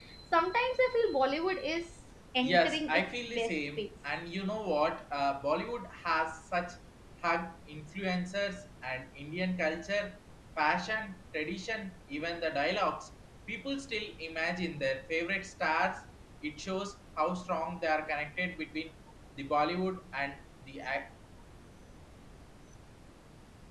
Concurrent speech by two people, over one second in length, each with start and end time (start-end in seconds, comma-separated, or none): 2.4-3.8